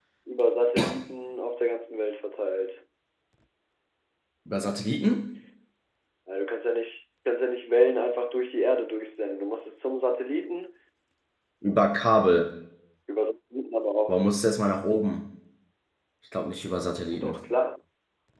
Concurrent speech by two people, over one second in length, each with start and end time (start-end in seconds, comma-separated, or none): none